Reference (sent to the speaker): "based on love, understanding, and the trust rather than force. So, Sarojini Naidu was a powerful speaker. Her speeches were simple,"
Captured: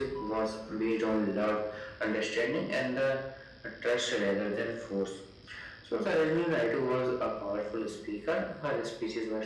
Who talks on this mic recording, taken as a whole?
echo only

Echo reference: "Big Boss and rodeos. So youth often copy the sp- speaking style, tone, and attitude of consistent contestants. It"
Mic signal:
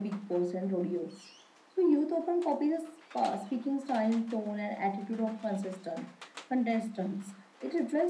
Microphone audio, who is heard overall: echo only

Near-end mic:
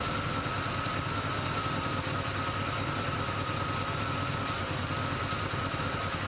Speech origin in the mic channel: neither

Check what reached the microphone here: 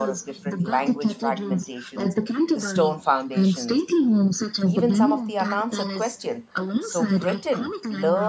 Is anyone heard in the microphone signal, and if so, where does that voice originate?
both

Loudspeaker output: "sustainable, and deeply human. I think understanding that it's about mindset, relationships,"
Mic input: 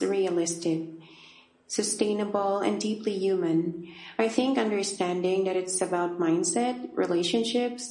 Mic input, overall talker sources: echo only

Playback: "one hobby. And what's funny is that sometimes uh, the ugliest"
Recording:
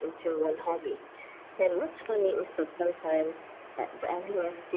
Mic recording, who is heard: echo only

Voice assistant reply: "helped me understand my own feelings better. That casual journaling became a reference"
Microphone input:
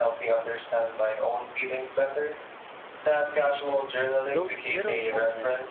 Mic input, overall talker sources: both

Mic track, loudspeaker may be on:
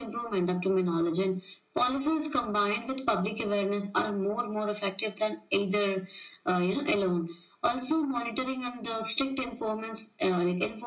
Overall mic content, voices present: echo only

